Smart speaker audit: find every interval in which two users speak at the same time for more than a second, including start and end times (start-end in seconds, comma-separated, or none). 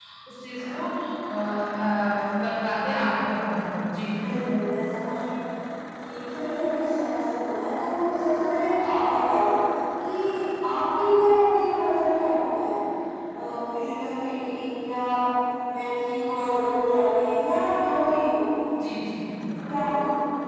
none